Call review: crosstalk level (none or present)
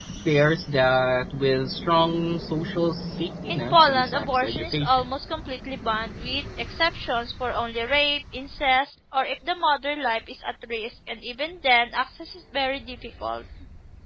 present